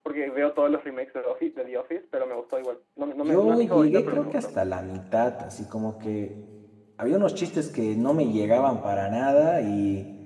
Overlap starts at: 3 s

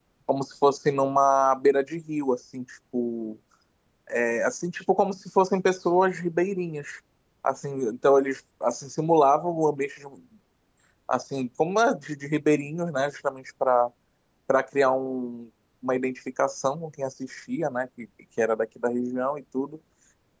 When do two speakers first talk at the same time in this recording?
none

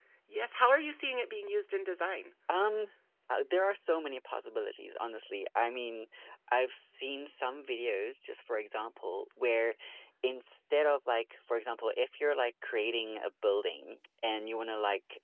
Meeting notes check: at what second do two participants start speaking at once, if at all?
none

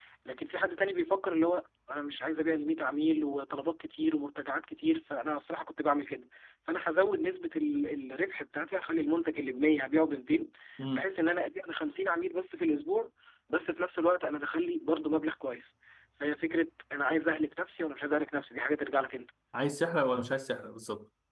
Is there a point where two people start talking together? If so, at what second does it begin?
none

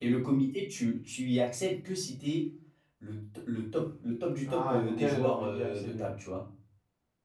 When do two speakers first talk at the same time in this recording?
4 s

